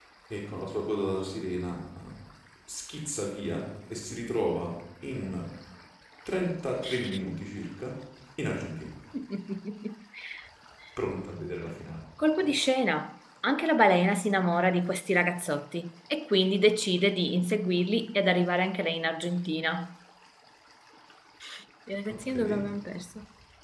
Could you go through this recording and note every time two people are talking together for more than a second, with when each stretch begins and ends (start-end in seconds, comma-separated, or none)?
none